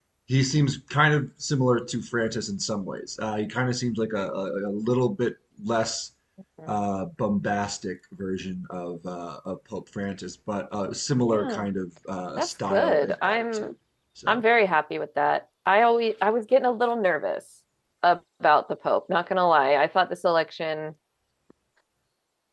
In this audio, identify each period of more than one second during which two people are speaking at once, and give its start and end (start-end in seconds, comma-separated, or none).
12.4-13.7